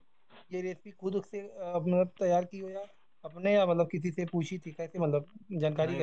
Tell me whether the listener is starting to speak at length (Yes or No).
Yes